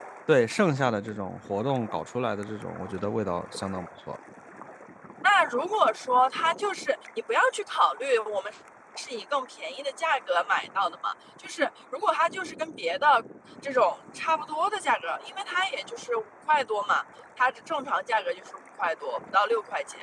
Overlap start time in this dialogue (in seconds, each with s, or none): none